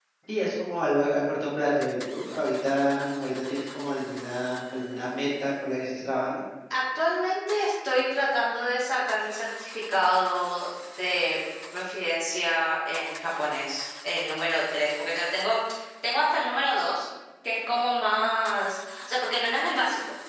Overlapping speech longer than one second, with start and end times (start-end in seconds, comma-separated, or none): none